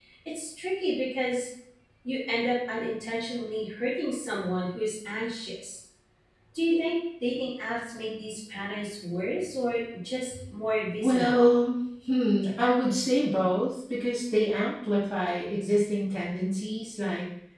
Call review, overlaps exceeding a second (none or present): none